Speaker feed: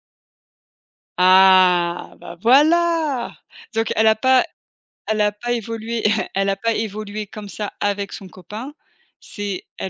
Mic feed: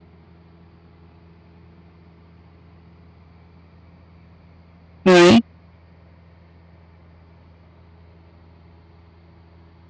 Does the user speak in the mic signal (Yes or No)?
Yes